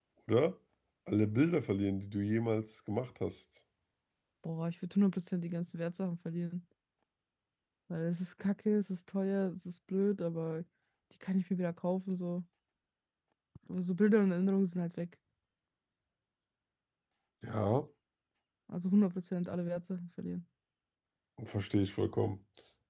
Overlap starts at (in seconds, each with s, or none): none